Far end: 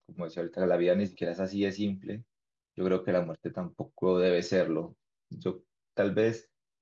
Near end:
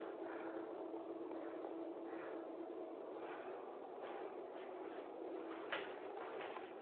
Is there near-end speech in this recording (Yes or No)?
No